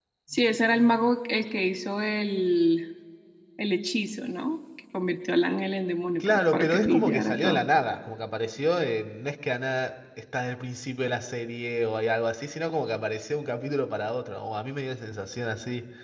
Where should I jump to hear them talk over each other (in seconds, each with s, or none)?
6.2 s